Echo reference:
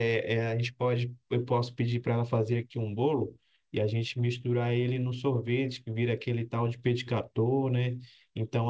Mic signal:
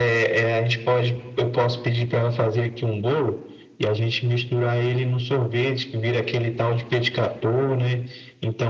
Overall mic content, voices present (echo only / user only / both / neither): echo only